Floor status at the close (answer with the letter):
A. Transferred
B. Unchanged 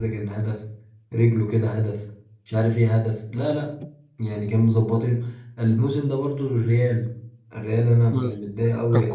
A